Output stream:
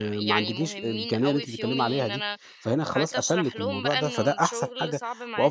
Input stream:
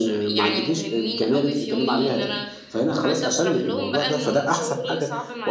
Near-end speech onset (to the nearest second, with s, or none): 0 s